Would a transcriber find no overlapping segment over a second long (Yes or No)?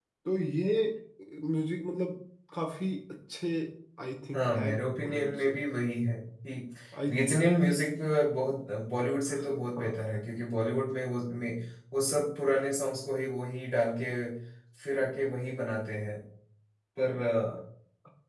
No